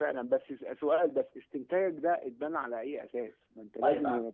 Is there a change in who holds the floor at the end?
No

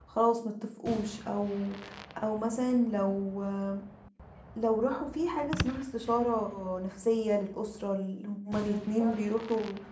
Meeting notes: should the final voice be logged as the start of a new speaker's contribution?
No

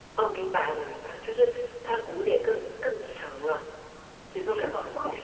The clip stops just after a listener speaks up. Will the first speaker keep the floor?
No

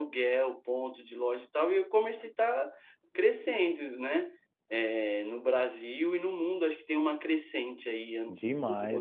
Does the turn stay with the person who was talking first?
No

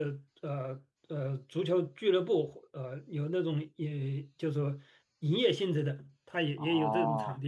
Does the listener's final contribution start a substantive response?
Yes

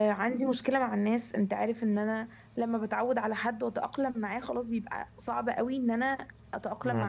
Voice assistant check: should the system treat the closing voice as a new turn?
No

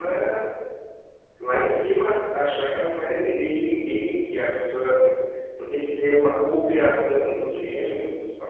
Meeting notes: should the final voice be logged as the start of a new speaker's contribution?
Yes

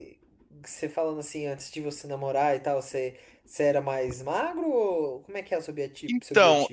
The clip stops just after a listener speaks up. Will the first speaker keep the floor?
No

